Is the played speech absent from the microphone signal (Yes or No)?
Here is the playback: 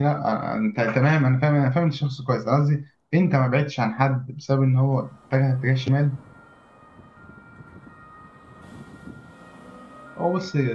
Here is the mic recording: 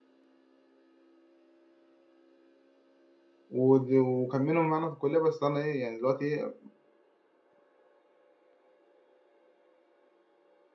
Yes